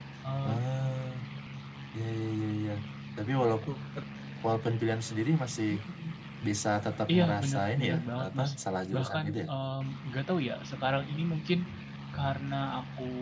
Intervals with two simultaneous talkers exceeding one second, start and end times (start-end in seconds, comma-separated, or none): 7.1-8.5